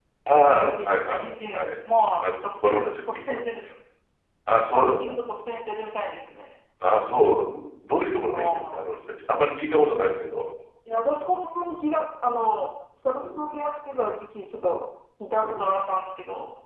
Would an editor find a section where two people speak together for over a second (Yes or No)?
Yes